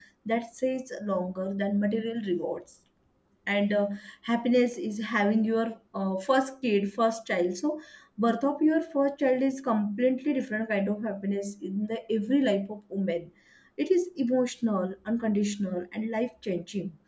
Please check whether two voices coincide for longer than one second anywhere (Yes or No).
No